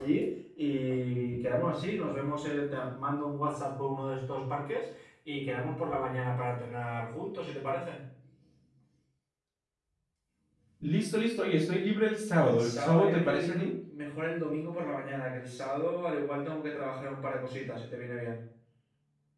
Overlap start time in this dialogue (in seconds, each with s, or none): 12.4 s